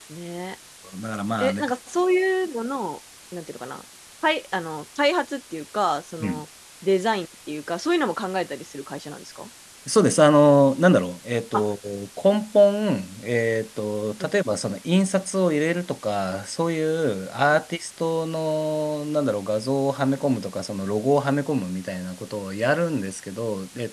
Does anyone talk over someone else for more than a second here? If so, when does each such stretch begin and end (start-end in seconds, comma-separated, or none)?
none